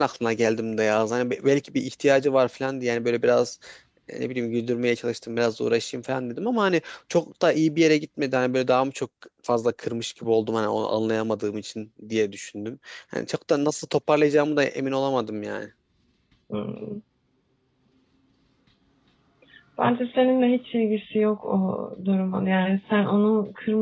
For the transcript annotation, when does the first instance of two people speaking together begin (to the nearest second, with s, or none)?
none